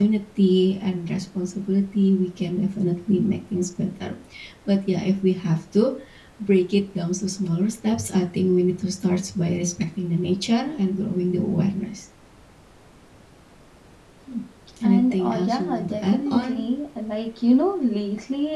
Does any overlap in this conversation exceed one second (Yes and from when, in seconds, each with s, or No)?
Yes, from 14.8 s